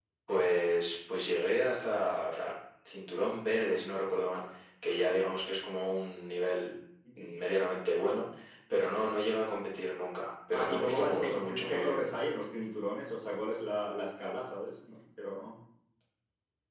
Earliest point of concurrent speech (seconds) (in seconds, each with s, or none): 10.5 s